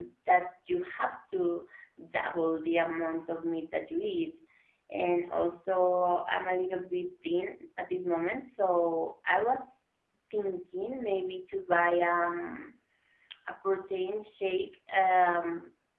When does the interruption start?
none

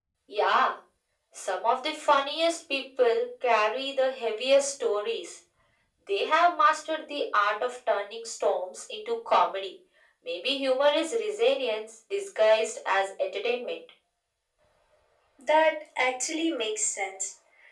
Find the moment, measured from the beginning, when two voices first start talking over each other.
none

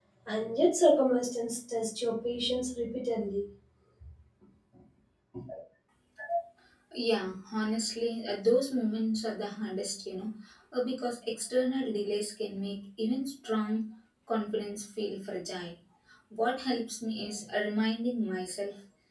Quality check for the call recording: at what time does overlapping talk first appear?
none

